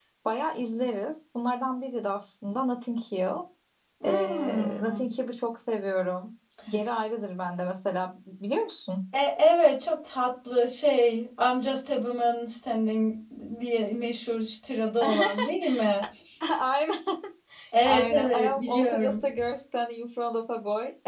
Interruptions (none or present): present